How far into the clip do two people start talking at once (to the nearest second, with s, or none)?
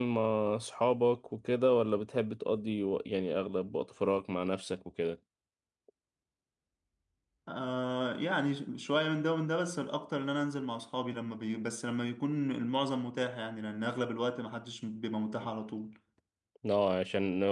none